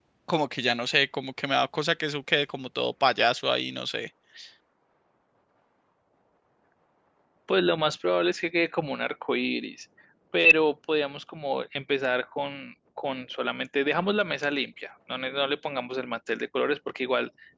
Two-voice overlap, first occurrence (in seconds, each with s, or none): none